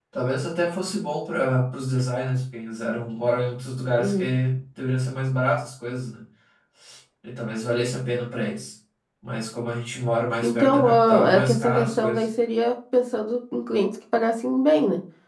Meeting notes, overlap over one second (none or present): present